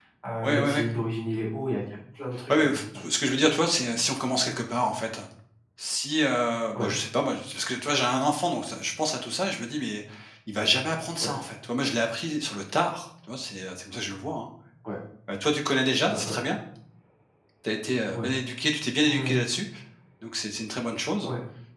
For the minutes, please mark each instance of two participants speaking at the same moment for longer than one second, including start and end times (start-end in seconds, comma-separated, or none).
none